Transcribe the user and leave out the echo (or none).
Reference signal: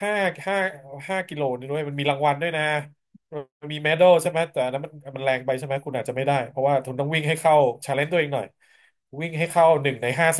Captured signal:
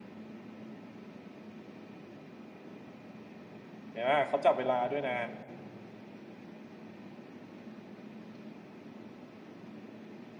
เห็นไหมเขาจับเวลาด้วยนะ